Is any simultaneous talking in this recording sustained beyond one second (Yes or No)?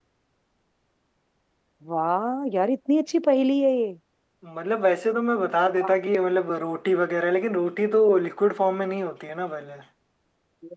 No